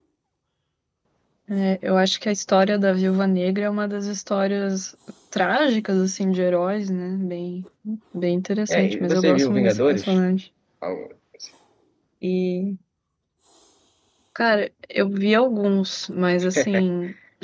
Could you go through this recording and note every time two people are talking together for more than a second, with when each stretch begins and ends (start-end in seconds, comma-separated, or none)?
8.7-10.2